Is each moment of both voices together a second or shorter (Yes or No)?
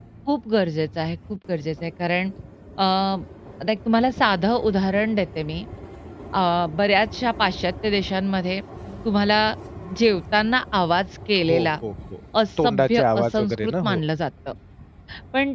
No